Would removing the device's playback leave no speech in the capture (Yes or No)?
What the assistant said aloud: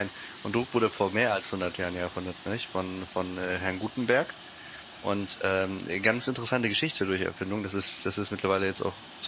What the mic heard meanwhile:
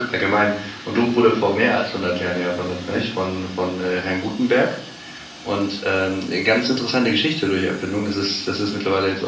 Yes